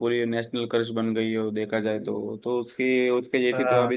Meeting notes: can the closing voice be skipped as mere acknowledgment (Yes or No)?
Yes